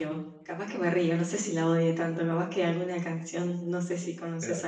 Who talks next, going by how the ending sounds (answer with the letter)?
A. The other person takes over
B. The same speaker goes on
B